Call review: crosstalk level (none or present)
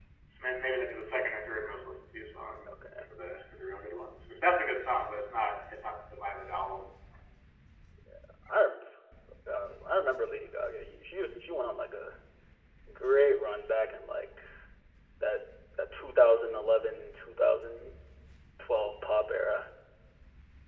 none